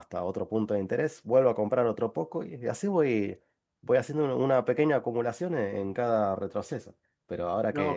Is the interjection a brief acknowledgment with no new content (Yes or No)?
Yes